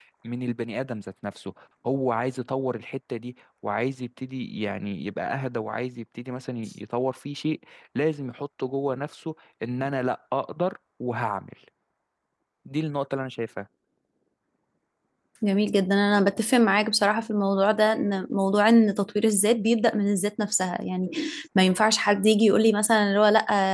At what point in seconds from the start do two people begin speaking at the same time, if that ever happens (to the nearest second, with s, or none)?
none